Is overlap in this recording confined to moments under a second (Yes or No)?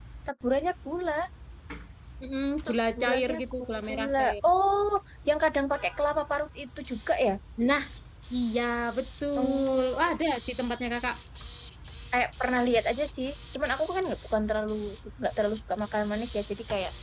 No